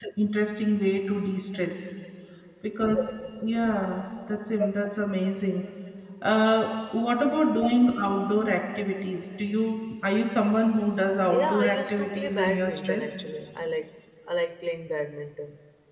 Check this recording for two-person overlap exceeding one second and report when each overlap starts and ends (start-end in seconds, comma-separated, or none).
11.3-13.2